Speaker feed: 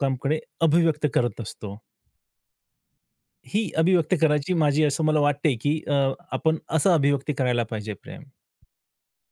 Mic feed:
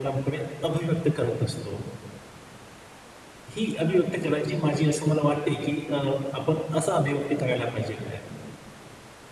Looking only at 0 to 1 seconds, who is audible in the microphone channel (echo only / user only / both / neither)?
echo only